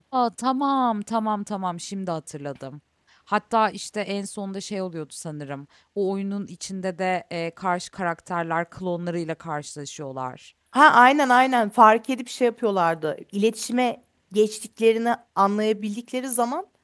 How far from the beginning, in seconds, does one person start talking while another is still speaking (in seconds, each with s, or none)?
none